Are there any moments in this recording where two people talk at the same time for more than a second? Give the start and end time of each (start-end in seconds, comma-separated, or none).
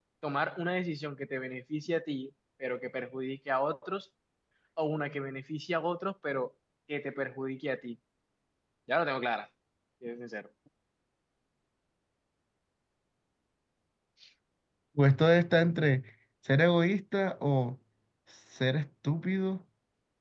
none